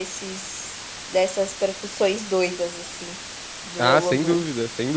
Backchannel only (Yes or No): No